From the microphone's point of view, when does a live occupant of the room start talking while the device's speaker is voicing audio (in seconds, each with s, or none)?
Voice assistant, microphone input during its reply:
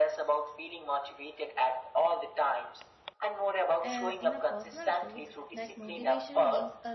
3.8 s